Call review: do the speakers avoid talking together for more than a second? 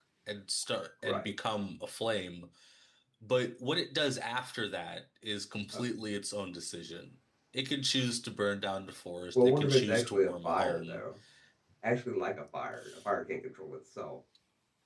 No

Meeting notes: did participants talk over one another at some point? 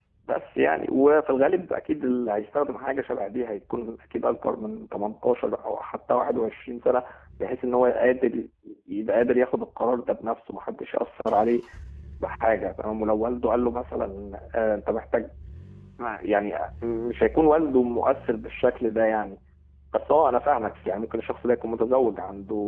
No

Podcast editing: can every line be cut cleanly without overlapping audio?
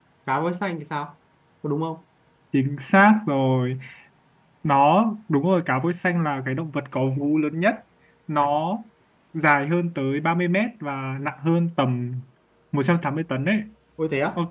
Yes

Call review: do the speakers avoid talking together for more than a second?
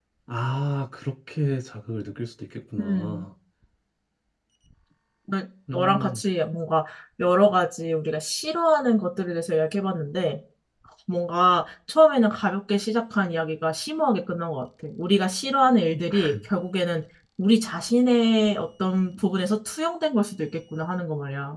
Yes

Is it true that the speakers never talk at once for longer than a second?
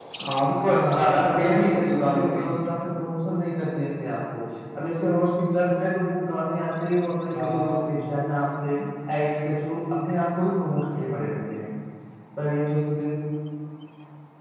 No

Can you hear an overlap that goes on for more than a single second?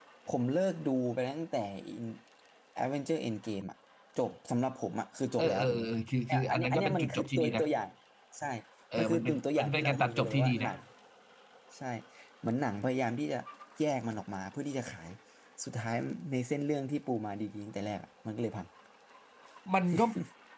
Yes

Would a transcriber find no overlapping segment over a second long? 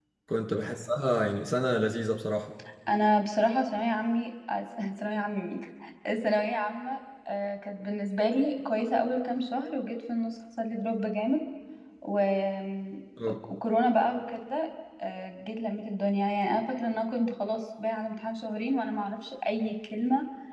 Yes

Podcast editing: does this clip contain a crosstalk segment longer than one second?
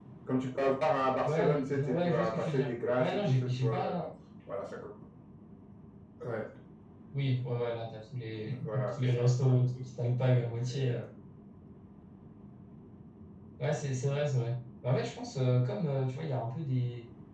Yes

